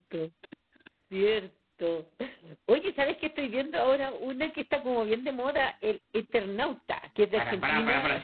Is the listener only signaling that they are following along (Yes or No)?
No